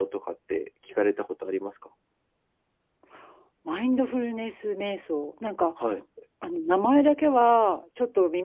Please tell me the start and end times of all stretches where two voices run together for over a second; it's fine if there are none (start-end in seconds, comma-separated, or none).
none